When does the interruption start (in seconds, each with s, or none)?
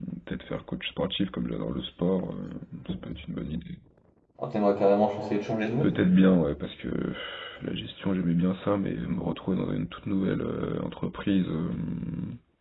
none